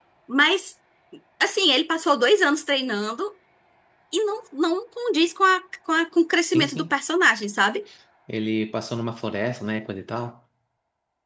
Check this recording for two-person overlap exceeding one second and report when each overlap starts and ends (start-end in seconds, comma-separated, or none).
none